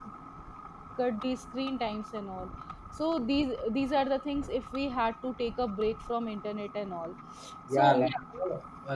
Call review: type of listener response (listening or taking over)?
taking over